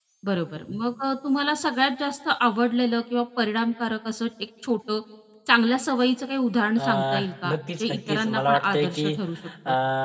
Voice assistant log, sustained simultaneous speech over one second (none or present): present